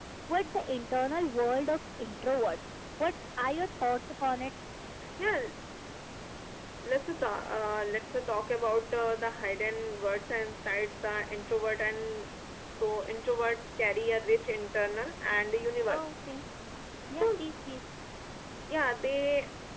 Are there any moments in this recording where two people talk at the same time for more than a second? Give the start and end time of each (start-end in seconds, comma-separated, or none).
none